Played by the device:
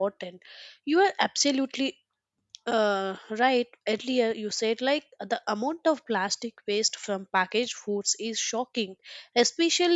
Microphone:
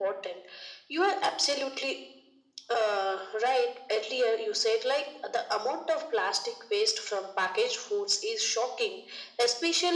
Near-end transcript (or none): none